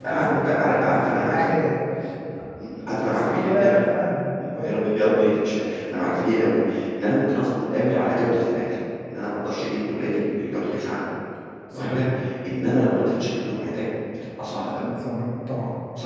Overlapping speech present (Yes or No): Yes